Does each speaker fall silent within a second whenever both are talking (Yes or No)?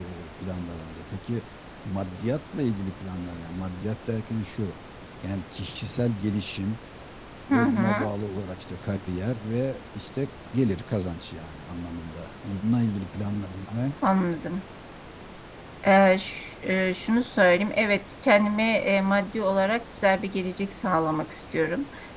Yes